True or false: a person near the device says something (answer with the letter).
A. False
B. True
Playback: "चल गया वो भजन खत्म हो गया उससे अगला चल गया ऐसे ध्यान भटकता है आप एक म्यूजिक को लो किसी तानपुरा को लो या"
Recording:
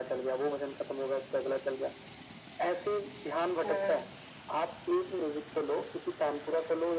B